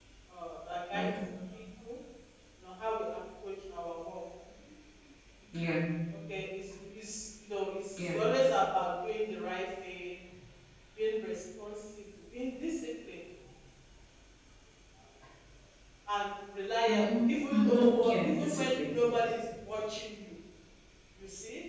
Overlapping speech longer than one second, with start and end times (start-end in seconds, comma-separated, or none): 16.9-18.9